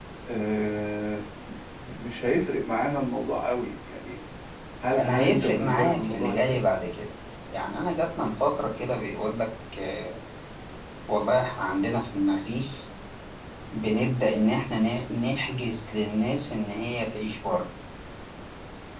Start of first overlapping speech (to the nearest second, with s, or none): 5 s